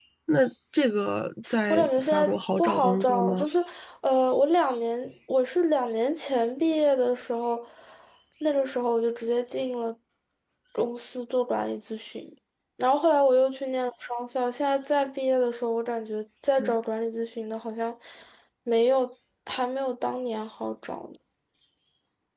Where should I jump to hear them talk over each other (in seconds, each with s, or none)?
1.7 s